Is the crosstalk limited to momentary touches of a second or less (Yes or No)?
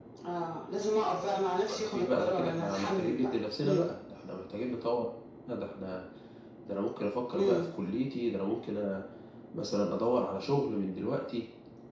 No